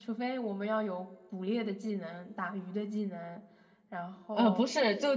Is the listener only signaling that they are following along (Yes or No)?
No